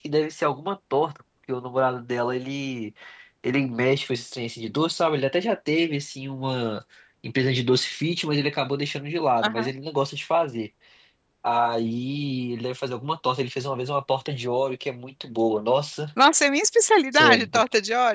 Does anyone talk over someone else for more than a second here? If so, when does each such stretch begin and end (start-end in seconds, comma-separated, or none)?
none